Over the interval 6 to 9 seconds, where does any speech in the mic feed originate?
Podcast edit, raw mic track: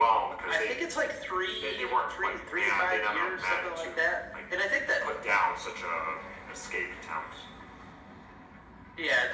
echo only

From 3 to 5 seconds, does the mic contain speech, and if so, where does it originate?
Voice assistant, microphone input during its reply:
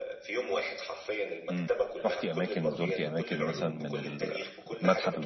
both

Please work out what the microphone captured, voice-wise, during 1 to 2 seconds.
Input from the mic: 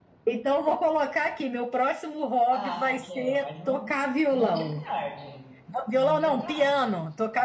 echo only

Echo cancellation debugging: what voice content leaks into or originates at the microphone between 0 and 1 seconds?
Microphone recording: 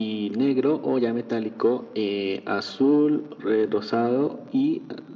echo only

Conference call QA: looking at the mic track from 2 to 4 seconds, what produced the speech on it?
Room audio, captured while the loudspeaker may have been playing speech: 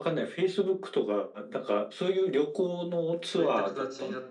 both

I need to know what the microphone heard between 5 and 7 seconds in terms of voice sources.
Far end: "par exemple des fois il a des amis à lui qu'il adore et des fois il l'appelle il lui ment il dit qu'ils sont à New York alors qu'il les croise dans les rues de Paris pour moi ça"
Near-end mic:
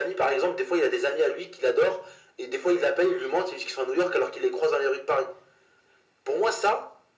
echo only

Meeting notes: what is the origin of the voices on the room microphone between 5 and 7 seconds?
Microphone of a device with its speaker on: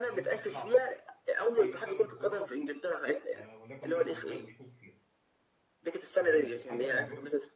both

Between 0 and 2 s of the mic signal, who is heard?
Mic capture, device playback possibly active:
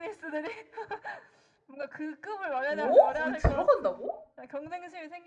echo only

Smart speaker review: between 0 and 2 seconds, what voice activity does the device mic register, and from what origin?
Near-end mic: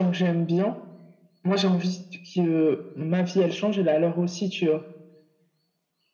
echo only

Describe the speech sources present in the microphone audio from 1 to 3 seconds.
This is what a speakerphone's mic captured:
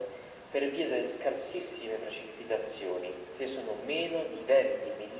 echo only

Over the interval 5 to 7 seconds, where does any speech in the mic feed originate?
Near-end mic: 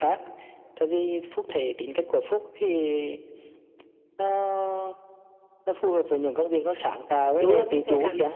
echo only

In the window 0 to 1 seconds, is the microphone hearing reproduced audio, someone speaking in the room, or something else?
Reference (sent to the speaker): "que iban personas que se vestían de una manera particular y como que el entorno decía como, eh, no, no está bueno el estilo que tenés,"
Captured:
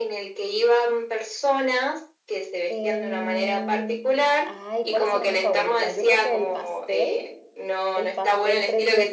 echo only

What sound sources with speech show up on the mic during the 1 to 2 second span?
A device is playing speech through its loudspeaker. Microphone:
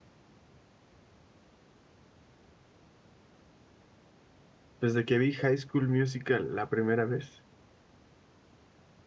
neither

